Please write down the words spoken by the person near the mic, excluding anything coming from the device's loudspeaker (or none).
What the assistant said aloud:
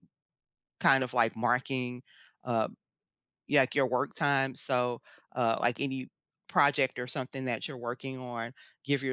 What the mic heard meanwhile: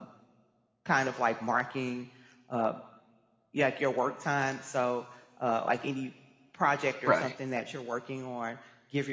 Right.